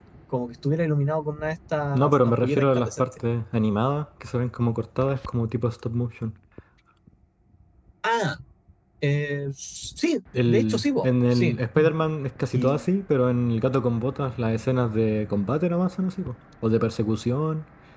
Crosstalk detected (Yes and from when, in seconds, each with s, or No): Yes, from 1.9 s